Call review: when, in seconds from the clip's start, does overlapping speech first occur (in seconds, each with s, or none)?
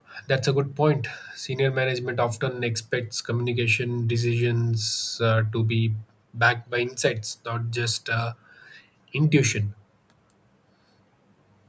none